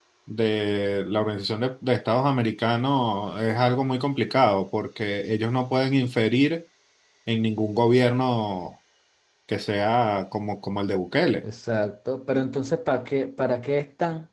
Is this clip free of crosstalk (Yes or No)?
Yes